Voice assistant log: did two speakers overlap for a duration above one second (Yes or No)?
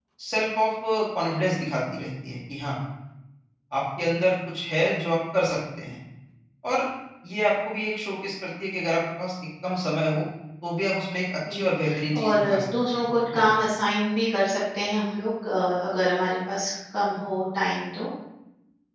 Yes